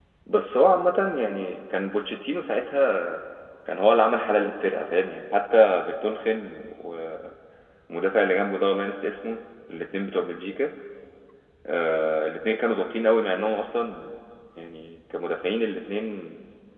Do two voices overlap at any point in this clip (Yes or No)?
No